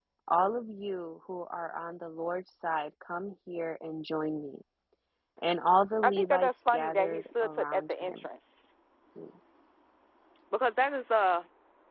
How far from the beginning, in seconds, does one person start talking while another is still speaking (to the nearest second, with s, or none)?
6 s